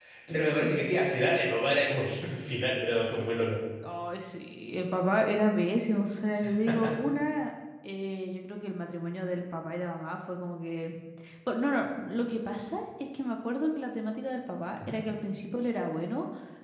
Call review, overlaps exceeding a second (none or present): none